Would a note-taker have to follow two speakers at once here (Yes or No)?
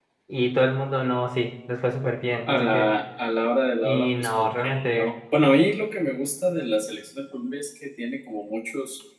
Yes